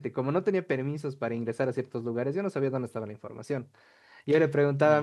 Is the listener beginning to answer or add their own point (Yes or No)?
No